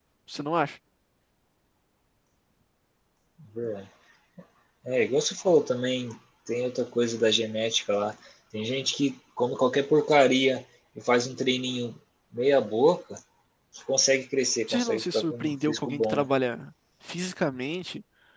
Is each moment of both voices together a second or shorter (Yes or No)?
No